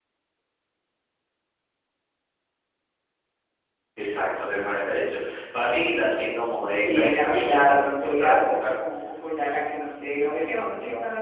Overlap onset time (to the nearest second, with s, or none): 7 s